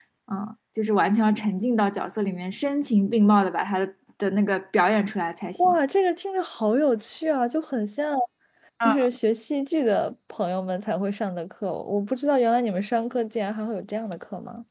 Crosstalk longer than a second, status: none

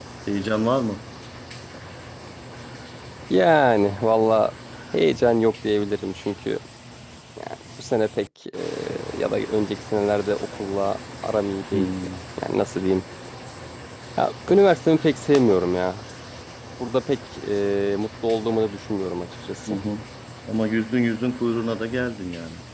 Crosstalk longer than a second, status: none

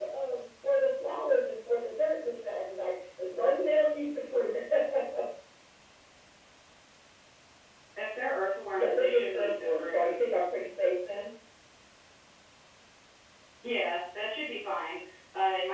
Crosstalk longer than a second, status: present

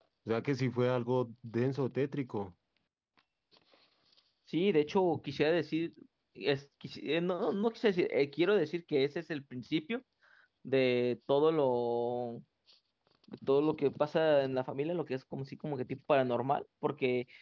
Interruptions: none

